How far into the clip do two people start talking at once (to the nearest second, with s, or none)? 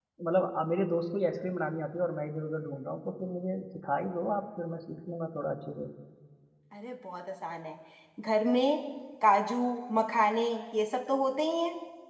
none